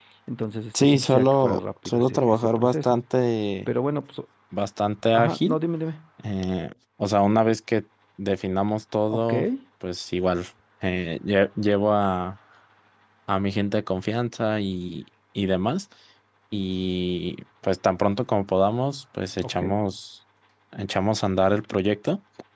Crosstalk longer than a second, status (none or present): present